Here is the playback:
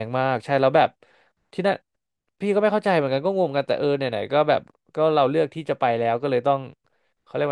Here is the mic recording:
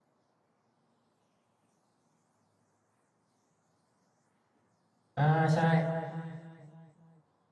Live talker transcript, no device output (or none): อ่าใช่